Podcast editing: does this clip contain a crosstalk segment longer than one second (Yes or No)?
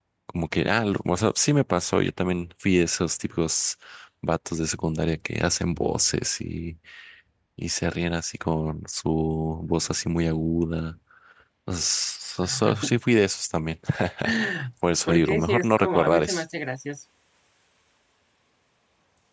Yes